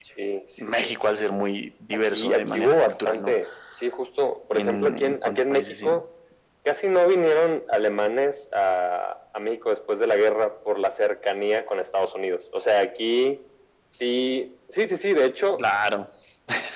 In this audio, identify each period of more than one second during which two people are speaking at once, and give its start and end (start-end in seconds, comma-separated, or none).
2.0-3.4, 4.5-5.9